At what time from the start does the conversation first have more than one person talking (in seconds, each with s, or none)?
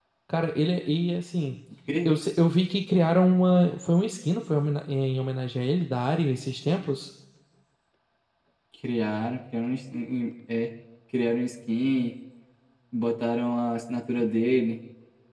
none